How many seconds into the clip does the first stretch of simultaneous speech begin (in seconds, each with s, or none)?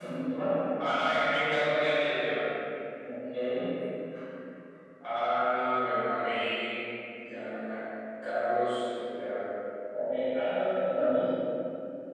none